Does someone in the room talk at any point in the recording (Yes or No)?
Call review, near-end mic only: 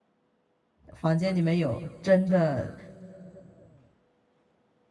Yes